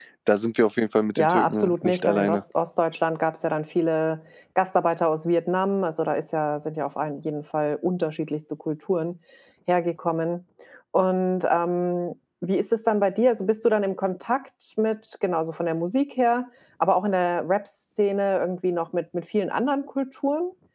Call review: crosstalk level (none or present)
present